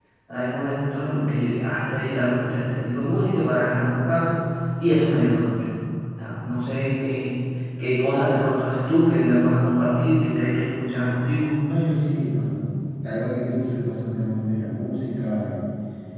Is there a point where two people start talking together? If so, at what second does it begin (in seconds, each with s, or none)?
none